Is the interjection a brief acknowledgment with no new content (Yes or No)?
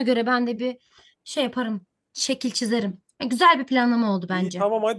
No